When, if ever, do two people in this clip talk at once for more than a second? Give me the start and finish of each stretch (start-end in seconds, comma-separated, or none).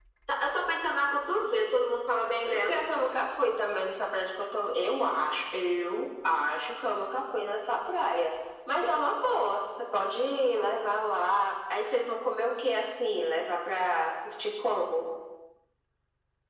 none